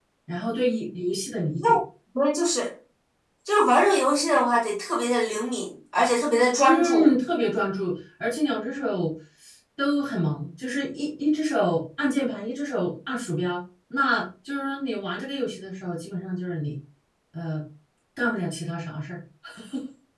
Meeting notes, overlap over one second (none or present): none